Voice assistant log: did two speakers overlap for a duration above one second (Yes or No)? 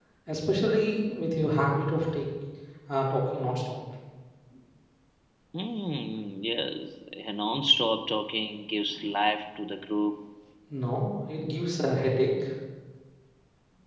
No